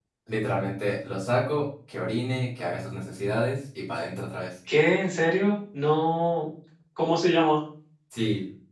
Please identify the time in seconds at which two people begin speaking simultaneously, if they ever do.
none

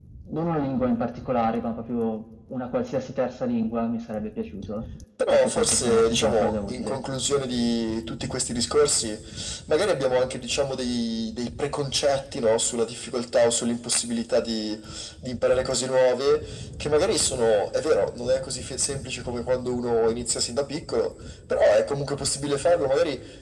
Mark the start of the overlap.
5.2 s

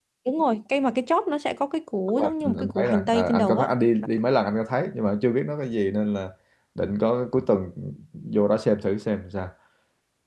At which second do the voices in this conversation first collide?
2.2 s

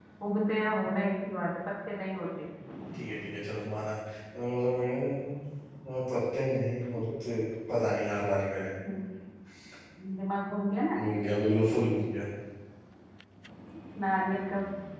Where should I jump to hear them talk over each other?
none

